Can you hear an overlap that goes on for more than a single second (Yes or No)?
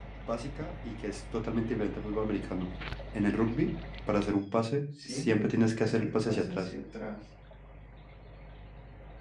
Yes